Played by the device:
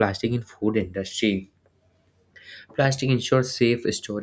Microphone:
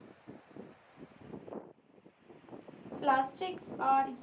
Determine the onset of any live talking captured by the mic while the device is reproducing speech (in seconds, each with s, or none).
3.0 s